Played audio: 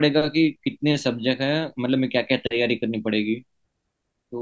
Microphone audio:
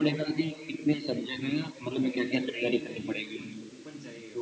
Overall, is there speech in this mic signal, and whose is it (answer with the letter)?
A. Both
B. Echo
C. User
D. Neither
A